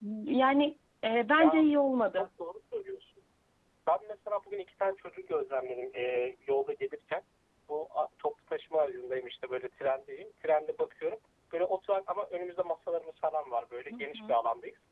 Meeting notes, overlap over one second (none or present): none